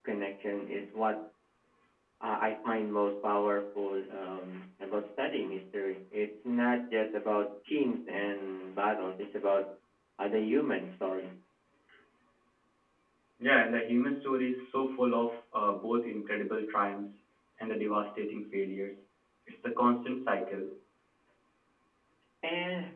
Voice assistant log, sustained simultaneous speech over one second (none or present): none